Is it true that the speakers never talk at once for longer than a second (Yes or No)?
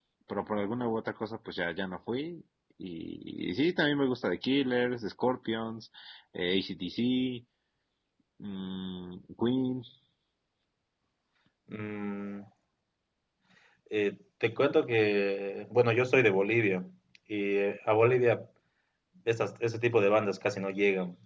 Yes